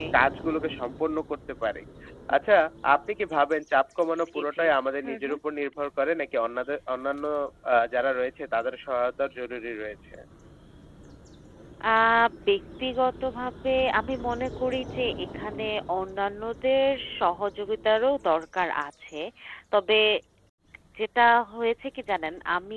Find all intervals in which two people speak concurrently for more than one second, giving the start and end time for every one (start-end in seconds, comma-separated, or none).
none